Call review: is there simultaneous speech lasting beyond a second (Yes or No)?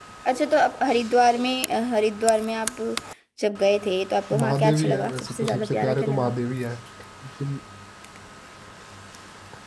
Yes